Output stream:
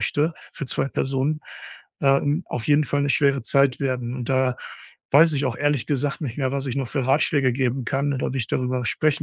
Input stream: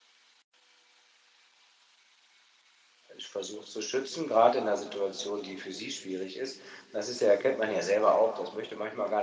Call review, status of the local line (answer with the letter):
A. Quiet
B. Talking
B